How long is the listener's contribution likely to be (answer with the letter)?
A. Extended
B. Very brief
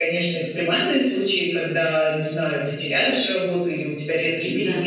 B